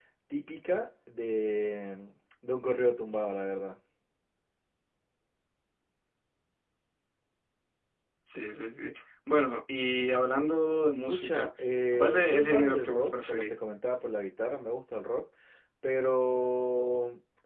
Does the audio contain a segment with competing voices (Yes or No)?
Yes